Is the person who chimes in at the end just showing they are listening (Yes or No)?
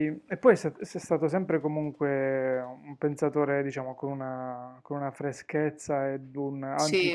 Yes